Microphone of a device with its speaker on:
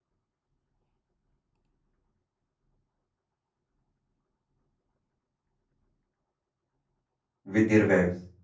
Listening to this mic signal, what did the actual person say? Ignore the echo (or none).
with their waves